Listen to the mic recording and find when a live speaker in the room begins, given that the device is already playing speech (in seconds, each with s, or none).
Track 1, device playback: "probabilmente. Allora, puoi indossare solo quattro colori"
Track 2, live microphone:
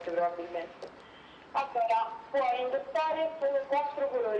none